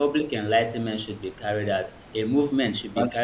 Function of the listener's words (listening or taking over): listening